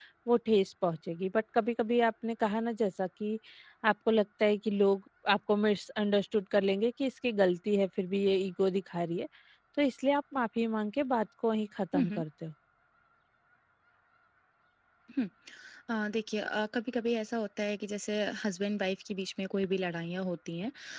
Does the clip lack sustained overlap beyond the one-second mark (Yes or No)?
Yes